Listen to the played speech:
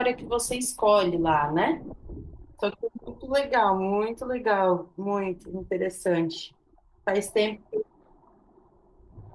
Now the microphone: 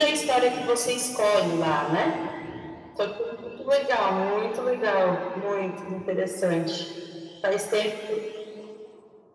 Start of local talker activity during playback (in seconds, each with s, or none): none